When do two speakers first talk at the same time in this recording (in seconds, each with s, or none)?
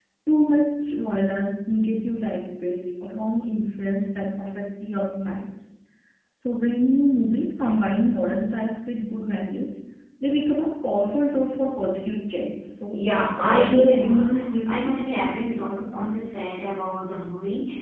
12.9 s